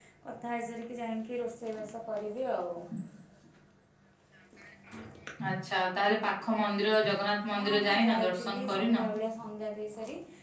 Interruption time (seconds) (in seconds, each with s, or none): 7.6 s